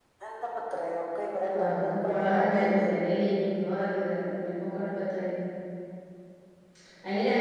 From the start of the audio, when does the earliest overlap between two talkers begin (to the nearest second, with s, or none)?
2 s